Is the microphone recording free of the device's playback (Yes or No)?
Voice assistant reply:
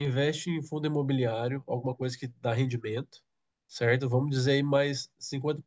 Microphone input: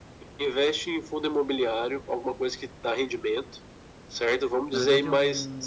No